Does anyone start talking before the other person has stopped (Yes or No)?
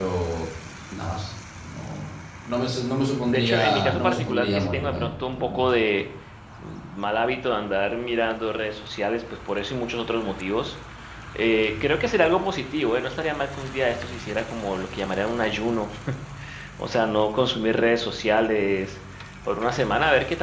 Yes